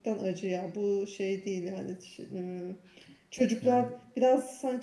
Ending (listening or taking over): listening